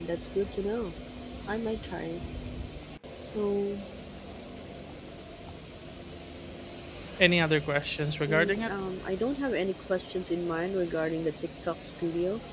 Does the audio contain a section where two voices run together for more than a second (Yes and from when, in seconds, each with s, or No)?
No